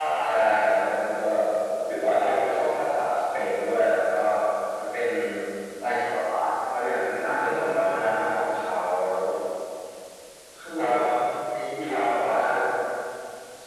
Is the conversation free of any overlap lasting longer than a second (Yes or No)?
No